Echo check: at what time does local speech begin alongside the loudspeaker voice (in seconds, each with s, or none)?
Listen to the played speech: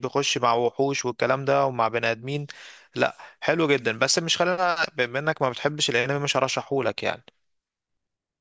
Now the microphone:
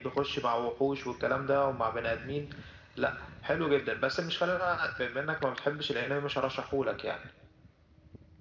none